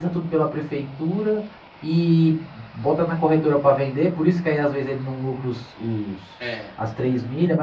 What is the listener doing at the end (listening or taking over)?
listening